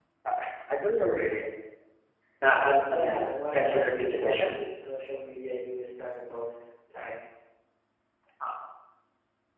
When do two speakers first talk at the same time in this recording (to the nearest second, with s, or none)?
3 s